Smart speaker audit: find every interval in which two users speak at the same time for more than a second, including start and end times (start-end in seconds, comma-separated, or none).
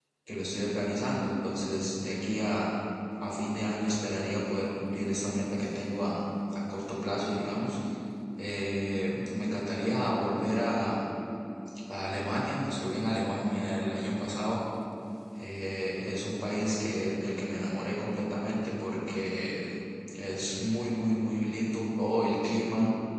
none